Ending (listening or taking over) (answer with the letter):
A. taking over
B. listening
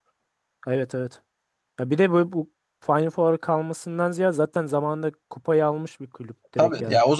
A